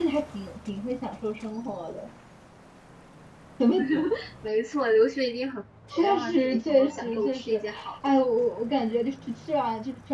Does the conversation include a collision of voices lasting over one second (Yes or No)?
Yes